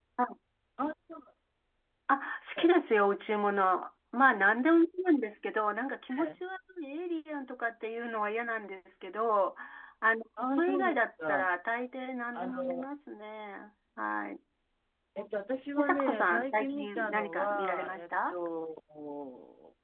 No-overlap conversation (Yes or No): No